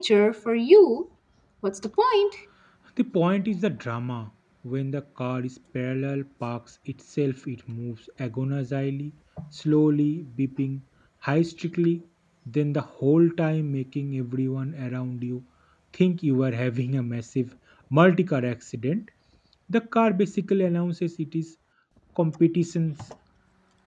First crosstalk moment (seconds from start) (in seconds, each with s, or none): none